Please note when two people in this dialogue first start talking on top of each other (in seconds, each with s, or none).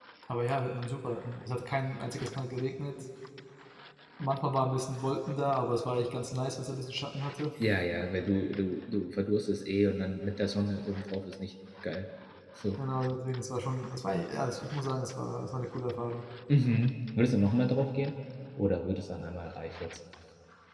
none